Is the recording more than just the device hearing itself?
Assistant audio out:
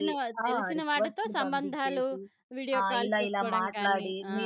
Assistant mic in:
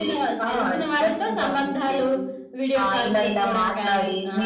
No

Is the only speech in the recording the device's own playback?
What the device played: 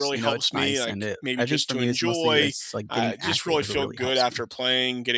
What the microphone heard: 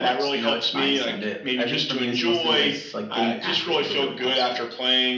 Yes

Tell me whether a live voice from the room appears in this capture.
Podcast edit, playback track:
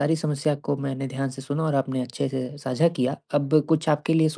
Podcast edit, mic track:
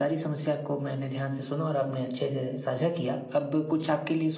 No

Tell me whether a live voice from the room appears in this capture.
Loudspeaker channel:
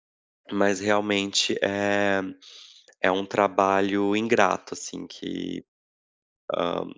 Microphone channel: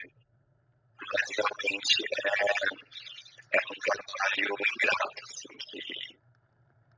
No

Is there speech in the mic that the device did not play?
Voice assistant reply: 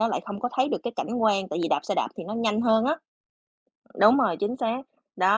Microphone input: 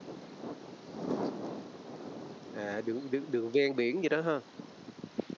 Yes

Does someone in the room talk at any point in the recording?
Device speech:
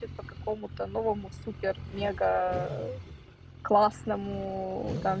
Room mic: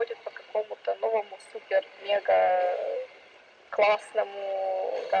No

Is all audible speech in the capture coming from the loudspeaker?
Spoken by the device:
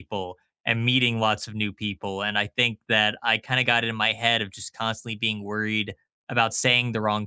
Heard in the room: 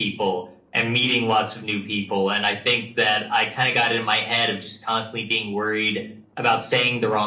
Yes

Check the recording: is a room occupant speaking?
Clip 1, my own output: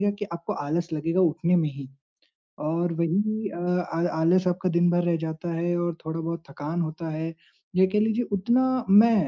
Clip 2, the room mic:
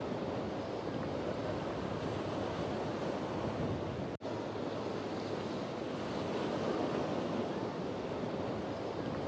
No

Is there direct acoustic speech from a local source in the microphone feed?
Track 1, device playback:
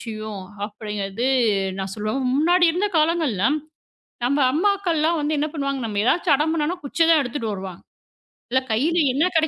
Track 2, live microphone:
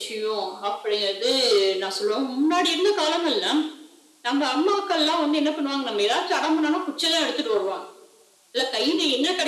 No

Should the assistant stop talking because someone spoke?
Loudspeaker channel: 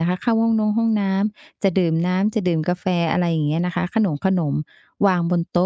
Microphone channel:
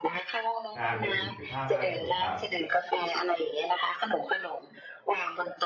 Yes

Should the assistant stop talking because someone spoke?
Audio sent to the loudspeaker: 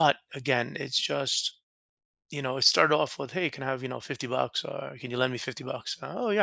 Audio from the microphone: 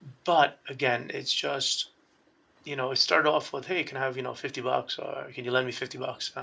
No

